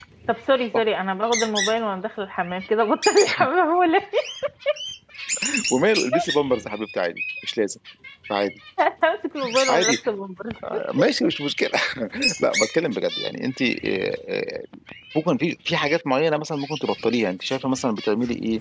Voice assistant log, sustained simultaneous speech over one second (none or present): none